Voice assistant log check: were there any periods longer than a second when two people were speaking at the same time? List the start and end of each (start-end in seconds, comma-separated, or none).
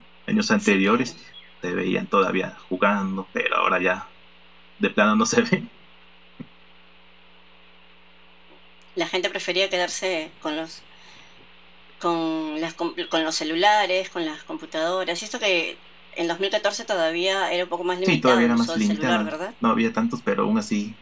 18.0-19.3